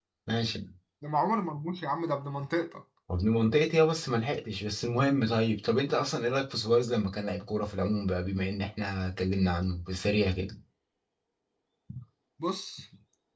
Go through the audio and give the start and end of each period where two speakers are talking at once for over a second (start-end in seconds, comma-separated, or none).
none